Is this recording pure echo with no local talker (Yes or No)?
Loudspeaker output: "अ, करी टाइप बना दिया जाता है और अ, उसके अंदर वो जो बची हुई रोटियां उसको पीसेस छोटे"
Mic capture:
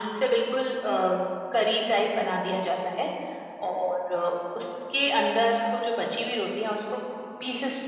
Yes